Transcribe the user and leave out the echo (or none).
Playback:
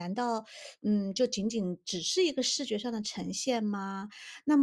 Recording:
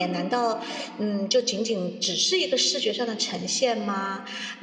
none